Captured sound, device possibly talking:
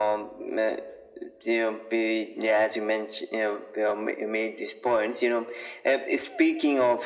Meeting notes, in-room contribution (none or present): none